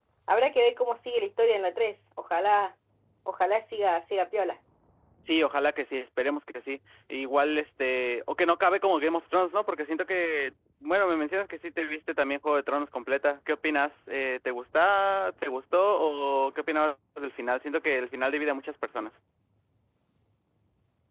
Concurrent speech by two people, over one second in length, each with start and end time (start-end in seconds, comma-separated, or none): none